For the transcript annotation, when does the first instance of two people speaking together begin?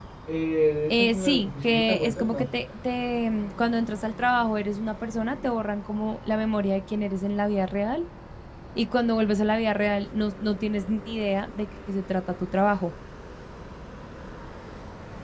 1 s

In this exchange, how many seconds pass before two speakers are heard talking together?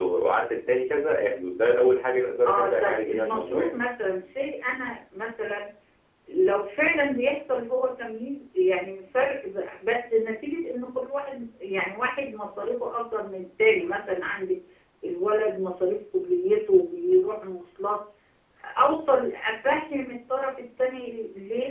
2 s

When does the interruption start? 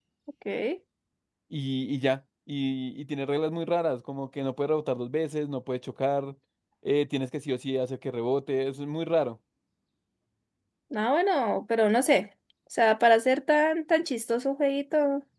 none

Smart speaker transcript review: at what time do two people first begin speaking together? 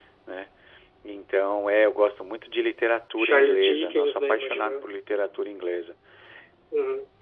3 s

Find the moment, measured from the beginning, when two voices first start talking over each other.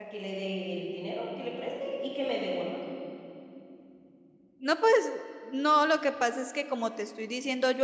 none

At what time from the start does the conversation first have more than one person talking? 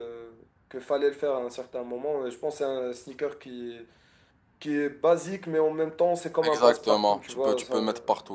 6 s

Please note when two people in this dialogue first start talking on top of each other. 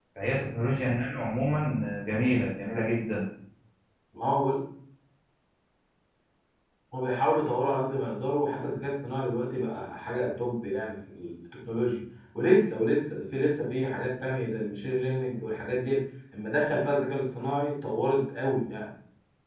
none

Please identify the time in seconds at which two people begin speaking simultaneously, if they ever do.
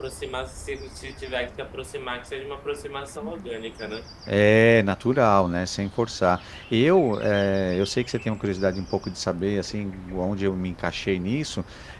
none

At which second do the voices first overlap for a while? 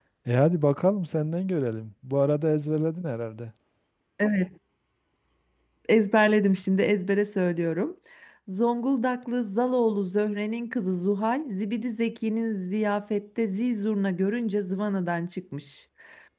none

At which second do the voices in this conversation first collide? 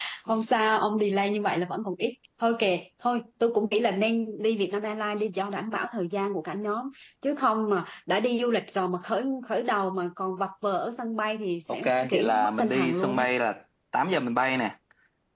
12 s

